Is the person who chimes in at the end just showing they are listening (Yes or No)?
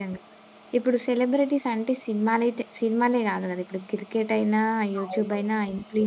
Yes